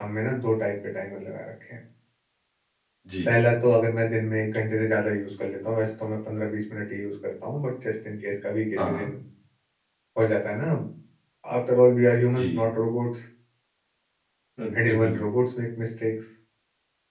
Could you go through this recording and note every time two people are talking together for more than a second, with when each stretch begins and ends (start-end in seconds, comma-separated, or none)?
none